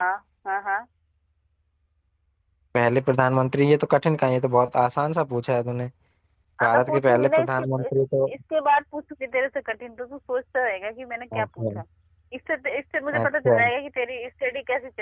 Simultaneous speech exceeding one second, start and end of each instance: 6.6-7.8

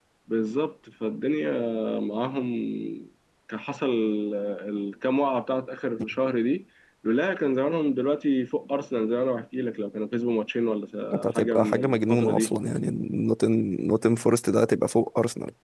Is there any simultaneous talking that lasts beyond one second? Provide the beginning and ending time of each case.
11.1-12.6

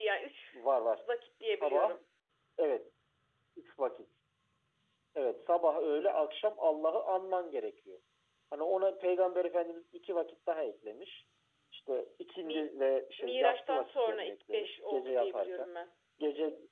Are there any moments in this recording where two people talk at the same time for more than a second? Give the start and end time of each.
13.2-15.7

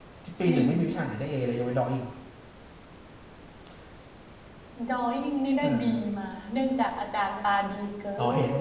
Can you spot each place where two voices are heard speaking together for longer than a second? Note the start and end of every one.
none

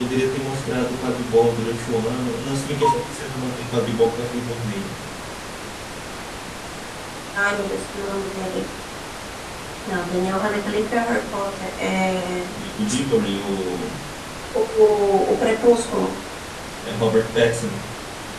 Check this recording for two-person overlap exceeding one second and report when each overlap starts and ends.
none

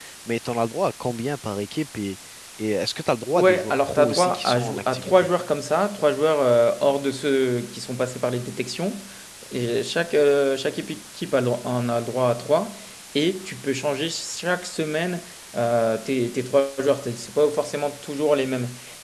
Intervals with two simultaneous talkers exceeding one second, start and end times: 3.4-5.3

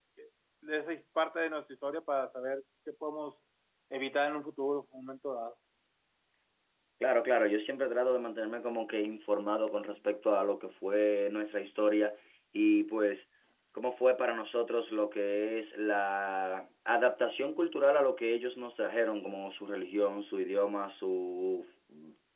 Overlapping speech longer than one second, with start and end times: none

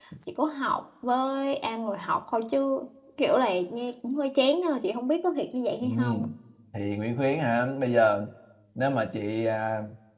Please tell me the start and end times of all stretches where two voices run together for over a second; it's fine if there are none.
none

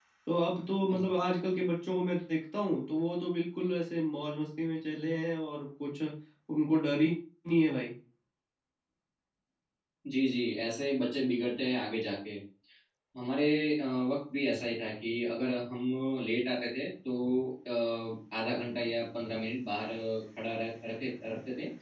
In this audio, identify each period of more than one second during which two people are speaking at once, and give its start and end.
none

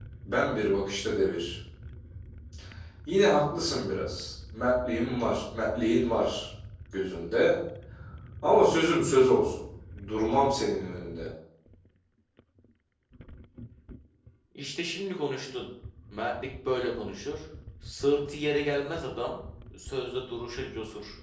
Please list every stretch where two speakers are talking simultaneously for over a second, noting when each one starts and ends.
none

